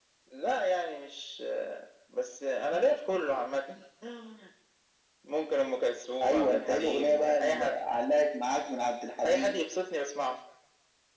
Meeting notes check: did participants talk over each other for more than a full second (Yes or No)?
Yes